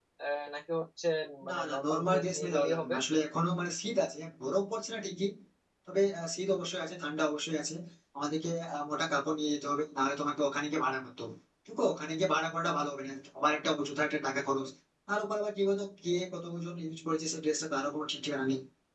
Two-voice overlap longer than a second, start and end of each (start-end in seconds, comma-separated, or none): 1.5-3.0